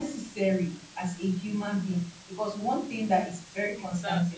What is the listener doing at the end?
listening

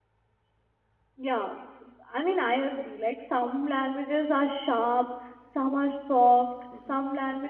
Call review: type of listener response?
listening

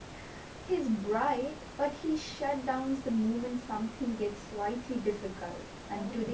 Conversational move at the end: listening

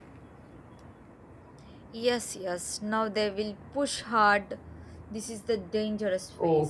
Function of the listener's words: taking over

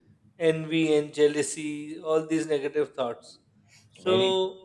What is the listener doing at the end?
taking over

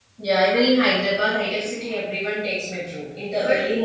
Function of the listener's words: listening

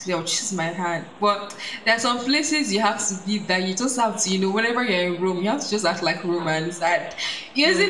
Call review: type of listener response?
listening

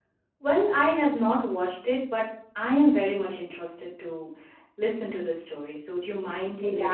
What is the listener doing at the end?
taking over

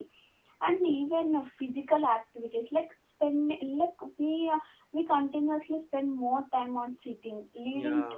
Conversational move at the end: listening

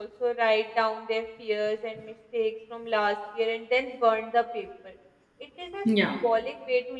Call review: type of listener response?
listening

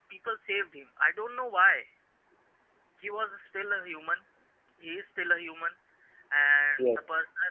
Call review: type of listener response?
listening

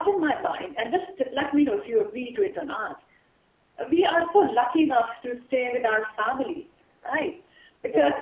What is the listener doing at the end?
listening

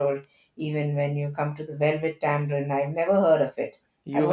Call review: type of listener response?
taking over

